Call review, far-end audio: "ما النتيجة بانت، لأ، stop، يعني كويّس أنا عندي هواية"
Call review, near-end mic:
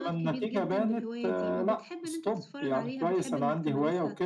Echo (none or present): present